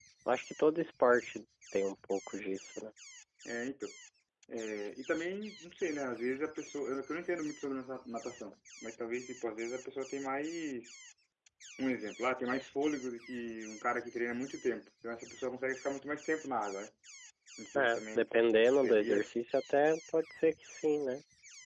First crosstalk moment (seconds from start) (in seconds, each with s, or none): 17.8 s